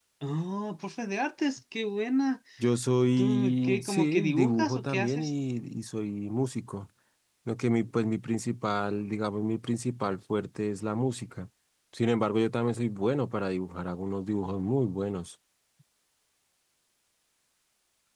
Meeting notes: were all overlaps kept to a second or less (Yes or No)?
No